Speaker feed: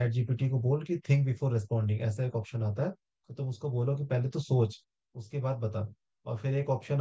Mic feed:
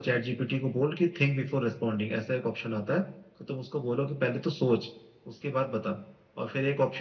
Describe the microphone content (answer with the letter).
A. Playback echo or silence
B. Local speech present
A